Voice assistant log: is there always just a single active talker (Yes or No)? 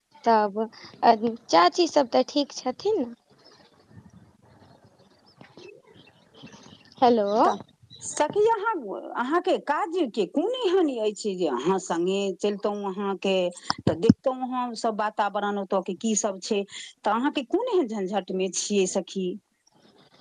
Yes